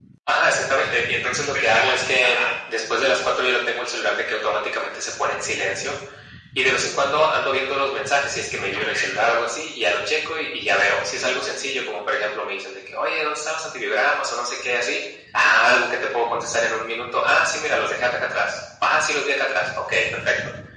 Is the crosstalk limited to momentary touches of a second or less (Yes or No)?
No